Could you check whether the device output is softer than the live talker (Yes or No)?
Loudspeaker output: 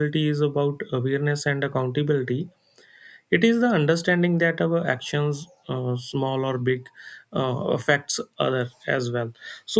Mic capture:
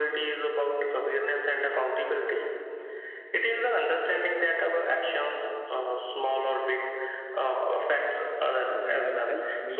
No